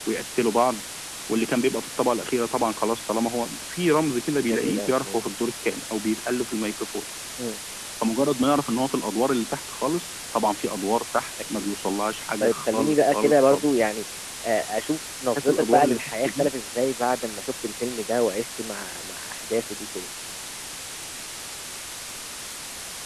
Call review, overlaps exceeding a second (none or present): present